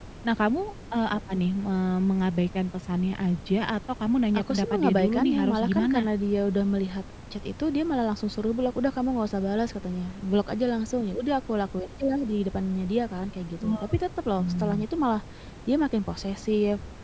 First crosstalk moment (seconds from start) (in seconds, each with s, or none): 4.4 s